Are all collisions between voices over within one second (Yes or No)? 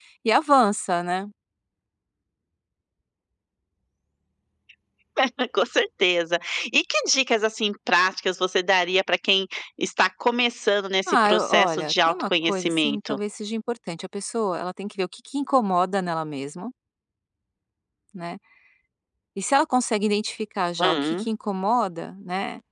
No